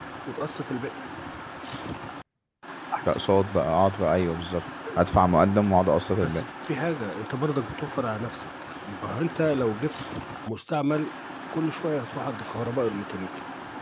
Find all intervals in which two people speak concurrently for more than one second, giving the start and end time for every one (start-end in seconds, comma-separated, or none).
none